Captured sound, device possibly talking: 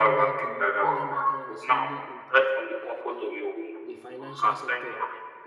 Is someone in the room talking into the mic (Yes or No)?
Yes